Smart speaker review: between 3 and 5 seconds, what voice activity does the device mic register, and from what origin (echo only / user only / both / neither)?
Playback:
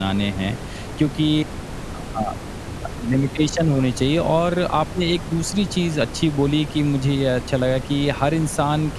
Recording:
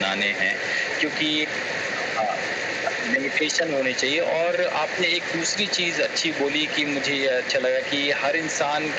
echo only